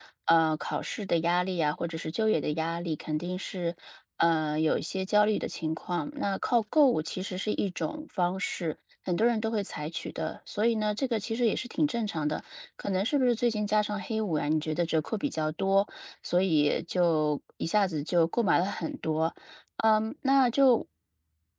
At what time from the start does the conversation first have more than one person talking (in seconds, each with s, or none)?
none